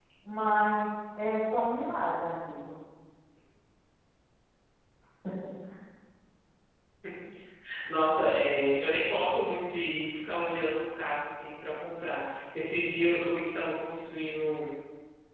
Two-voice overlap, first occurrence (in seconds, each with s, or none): none